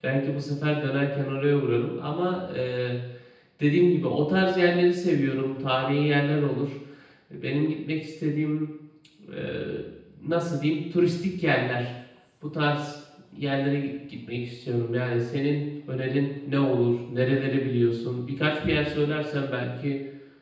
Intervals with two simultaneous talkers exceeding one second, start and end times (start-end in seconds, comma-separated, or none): none